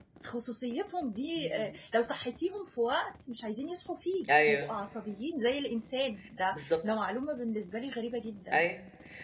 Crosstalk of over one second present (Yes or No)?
No